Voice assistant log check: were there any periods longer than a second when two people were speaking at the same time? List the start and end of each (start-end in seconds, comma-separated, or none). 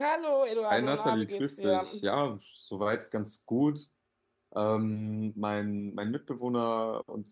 0.7-2.0